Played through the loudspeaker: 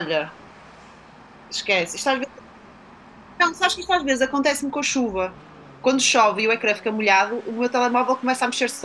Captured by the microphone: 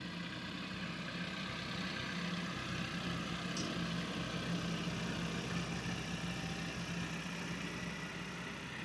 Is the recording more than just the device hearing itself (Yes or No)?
No